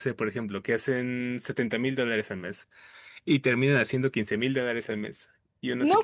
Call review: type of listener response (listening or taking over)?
taking over